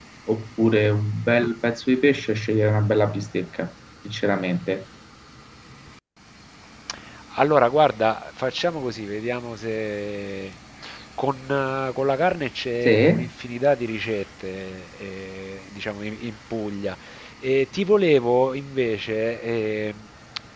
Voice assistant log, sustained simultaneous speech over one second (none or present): none